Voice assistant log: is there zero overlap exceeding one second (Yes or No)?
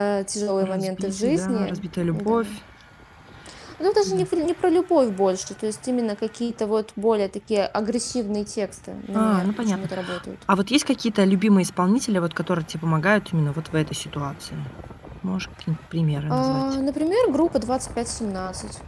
No